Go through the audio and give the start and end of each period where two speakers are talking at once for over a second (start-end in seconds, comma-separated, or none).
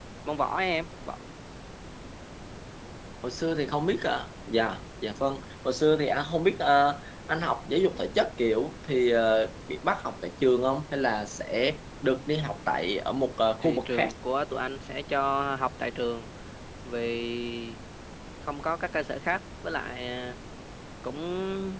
none